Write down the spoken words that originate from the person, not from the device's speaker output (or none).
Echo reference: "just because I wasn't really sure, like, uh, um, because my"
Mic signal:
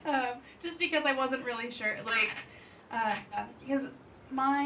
none